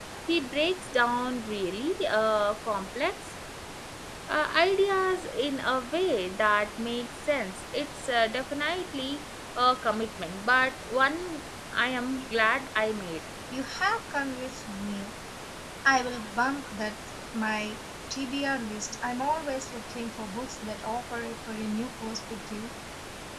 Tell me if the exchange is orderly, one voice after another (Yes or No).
Yes